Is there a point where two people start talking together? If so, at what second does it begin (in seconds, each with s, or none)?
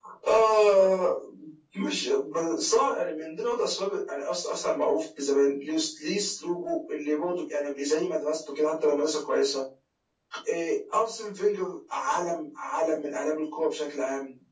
none